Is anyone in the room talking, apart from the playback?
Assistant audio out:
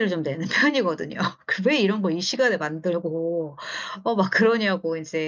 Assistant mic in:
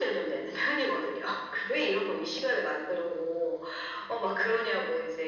No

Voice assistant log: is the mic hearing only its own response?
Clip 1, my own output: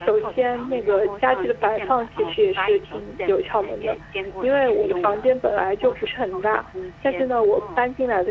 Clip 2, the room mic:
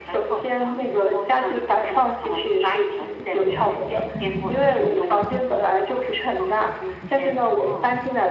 Yes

